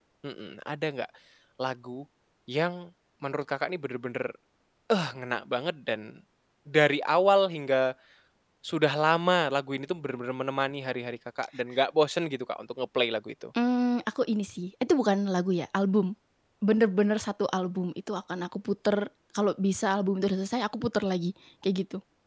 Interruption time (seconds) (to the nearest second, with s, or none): none